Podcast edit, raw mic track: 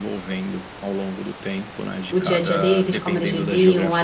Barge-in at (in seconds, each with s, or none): 2.1 s